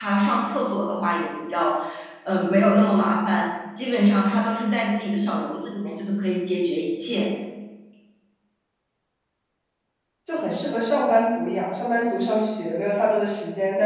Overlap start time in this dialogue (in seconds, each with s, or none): none